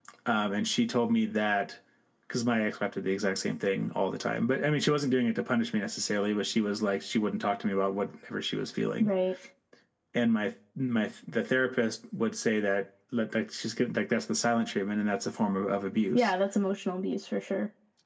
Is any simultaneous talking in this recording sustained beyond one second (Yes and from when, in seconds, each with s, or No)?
No